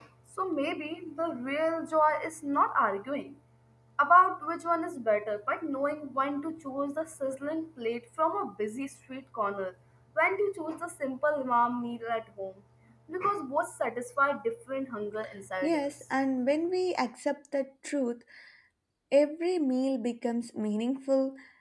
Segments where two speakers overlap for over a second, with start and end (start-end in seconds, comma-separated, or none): none